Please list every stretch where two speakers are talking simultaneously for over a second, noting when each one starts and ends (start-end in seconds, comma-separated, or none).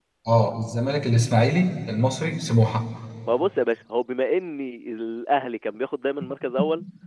none